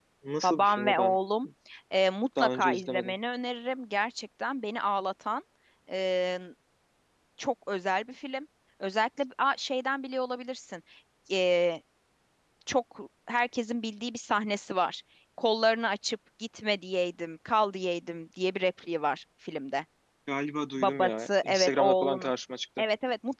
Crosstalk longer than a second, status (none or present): present